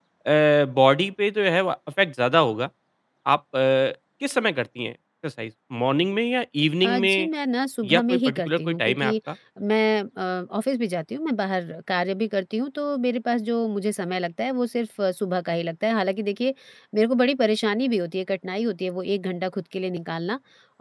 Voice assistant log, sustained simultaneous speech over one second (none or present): present